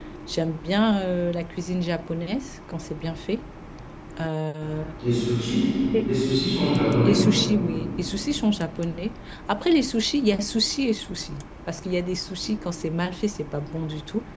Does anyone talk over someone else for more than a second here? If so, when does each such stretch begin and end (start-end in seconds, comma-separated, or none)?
none